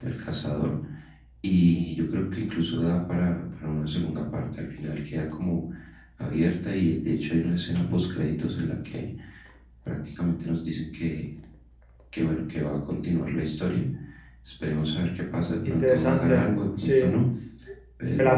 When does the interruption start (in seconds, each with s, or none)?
15.6 s